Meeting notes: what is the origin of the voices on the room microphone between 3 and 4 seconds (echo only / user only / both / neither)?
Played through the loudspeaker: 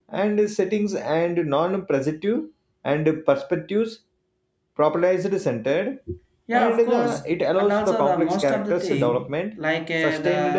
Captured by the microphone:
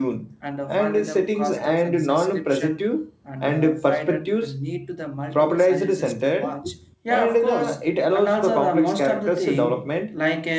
both